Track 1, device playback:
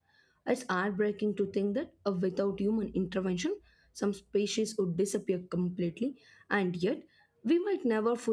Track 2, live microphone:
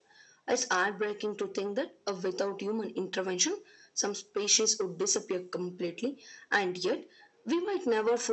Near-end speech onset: none

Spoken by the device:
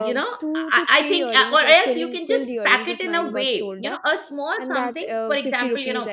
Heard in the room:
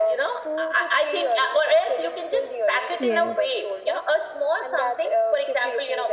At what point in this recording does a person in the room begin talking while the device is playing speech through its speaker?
3 s

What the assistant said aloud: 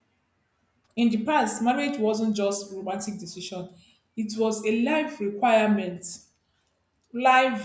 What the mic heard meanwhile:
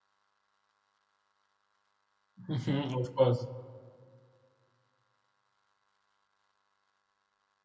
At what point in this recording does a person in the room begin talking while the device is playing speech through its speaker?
2 s

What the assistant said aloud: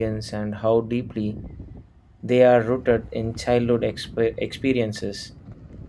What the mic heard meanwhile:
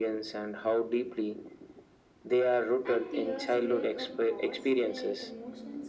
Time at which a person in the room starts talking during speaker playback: 3 s

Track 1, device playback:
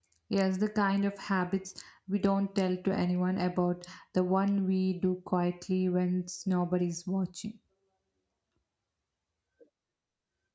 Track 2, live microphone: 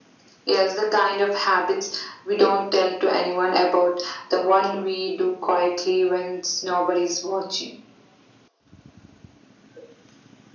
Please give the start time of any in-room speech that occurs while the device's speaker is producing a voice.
none

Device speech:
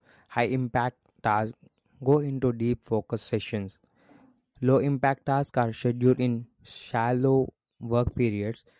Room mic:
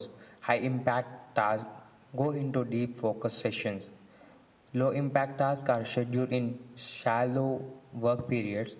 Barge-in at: none

